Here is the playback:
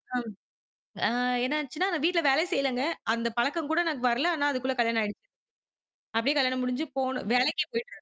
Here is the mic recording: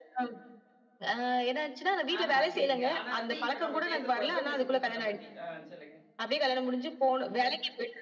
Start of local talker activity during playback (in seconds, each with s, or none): 2.2 s